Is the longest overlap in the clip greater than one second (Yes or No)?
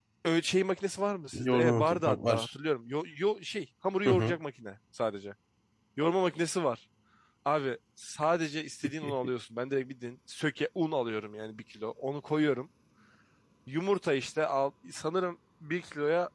Yes